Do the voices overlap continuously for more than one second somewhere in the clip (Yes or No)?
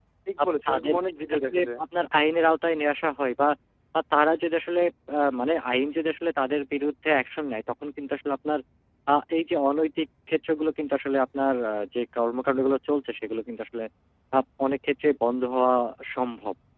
Yes